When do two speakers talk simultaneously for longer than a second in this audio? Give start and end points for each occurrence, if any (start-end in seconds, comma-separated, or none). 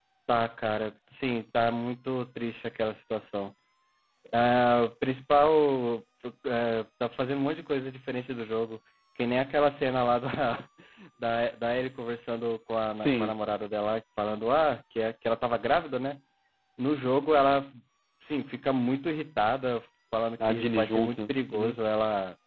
20.5-21.8